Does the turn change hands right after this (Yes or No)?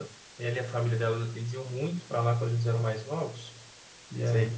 No